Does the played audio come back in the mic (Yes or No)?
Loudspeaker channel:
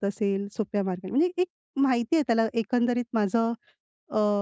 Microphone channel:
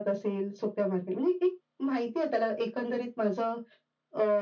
Yes